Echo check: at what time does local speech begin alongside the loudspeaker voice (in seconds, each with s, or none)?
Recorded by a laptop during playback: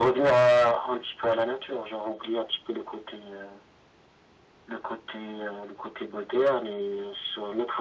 none